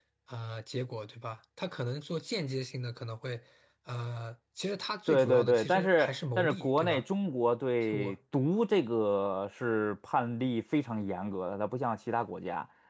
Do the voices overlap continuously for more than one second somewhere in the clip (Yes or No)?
Yes